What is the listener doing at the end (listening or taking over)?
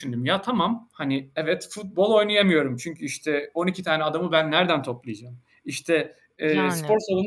listening